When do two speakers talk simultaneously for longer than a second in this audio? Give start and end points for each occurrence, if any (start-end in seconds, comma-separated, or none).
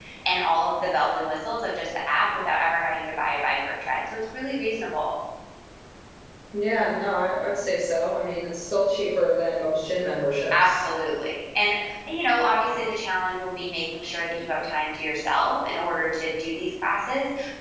none